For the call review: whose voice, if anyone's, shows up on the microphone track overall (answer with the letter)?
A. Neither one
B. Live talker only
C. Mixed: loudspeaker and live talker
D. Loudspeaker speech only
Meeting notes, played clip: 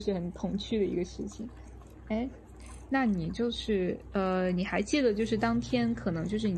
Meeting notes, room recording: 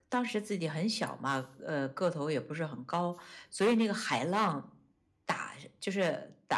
B